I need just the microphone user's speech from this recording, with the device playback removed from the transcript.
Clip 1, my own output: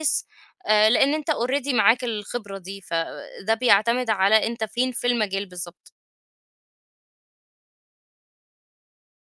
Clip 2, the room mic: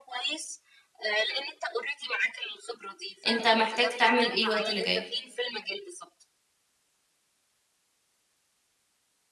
أنت محتاج تعمل إيه الوقت اللي جاي.

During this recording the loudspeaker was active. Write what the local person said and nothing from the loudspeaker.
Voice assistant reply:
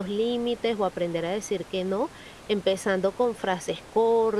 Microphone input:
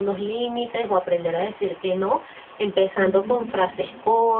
Ujú.

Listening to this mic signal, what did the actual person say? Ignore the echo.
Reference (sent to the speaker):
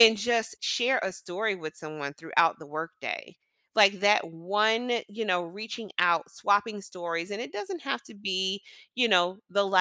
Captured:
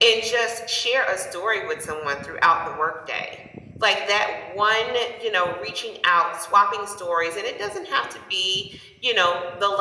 none

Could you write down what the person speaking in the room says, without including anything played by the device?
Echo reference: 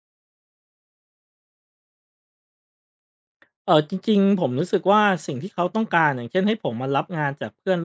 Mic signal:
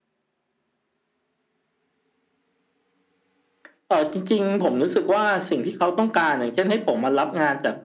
none

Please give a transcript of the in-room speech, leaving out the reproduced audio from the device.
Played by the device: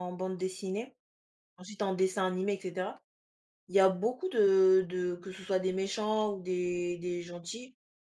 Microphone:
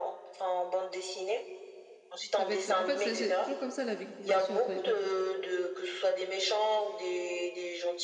ça va être en fait, c'est c'est toujours comme ça la victimisation entre les peuples.

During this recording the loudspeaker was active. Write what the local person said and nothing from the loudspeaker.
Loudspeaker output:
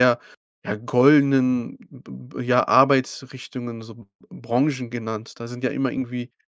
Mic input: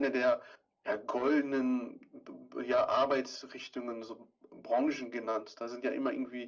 none

